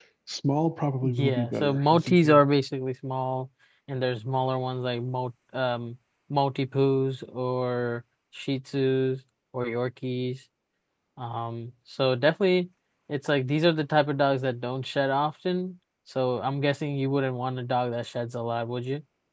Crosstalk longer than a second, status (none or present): present